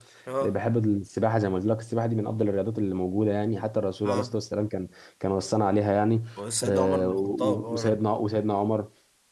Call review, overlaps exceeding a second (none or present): present